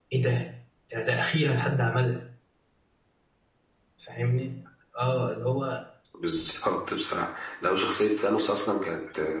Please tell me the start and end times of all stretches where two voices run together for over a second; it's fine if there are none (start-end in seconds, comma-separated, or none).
none